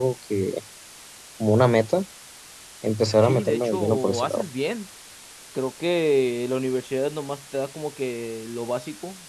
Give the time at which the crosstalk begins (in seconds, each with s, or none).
3.2 s